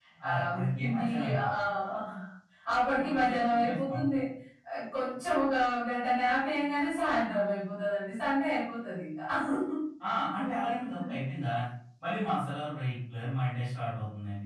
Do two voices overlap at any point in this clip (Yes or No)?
Yes